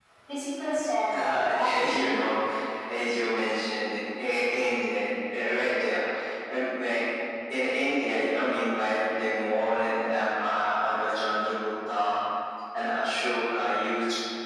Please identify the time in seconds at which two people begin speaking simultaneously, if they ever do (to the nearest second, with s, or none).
1 s